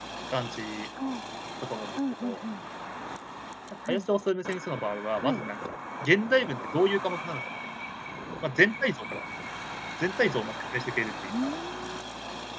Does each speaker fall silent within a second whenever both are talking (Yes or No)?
Yes